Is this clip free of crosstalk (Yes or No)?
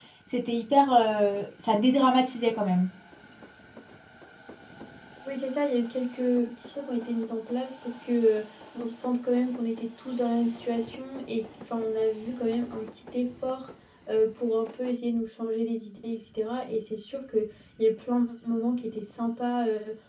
Yes